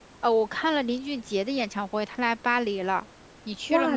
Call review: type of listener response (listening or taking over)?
taking over